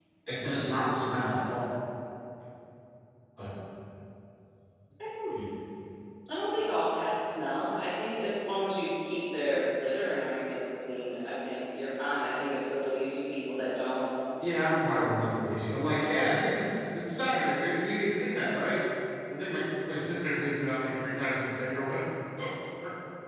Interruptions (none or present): none